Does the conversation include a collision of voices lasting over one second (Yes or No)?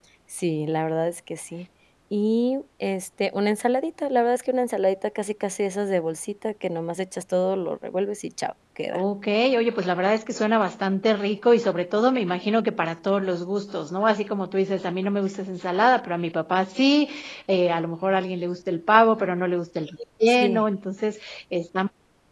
No